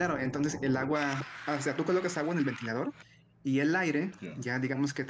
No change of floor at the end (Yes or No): Yes